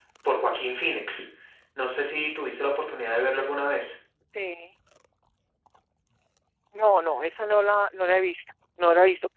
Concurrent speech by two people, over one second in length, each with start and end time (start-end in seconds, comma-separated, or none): none